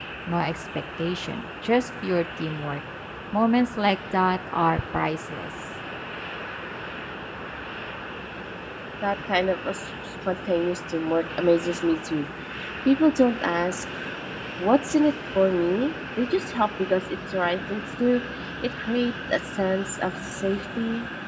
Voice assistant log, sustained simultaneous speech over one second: none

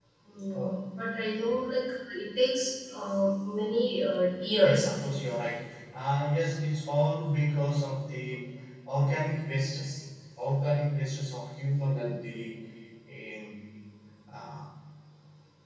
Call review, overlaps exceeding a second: none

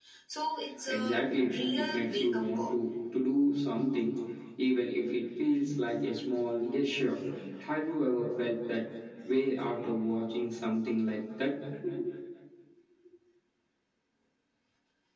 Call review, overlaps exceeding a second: present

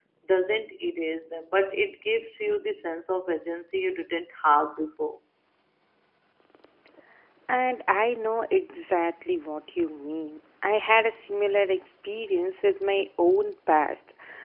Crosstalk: none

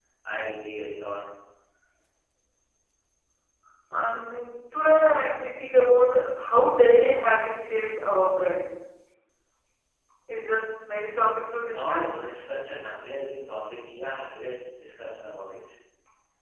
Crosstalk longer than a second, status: none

